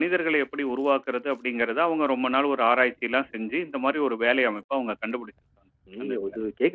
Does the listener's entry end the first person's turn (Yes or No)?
Yes